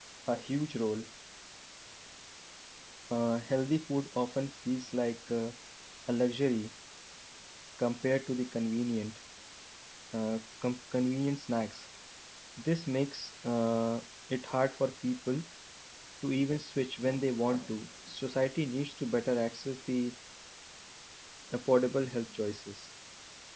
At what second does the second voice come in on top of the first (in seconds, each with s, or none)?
none